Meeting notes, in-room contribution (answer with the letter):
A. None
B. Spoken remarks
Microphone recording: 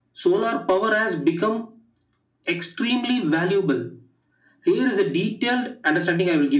A